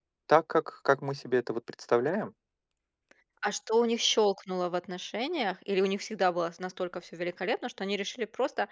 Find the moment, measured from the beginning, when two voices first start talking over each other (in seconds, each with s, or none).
none